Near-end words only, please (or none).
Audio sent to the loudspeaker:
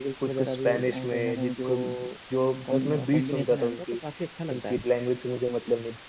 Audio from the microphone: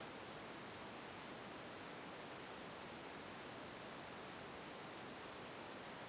none